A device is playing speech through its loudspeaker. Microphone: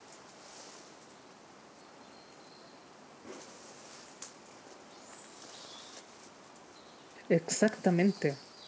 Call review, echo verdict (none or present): none